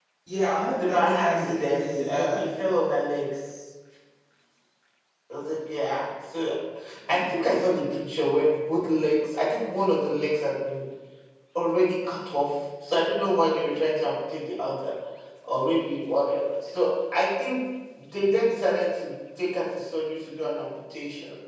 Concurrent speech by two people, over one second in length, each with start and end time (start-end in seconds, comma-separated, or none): 0.8-2.4